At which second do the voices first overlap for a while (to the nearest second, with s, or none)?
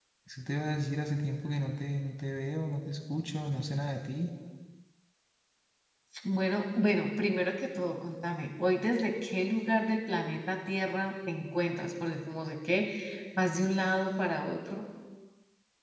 none